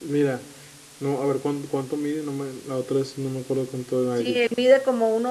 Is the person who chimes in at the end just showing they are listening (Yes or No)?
No